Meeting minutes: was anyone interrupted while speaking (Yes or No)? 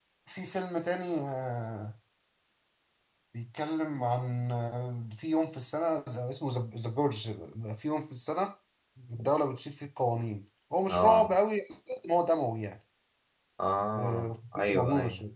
Yes